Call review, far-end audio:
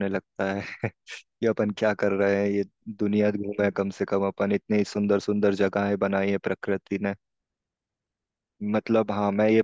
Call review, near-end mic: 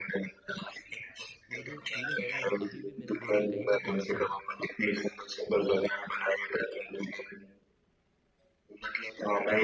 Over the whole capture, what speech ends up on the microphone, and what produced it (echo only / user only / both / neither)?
both